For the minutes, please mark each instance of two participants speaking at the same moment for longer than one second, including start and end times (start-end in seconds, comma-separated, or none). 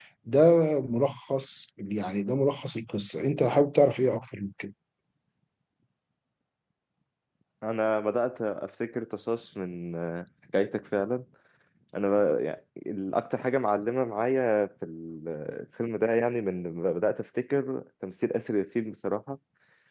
none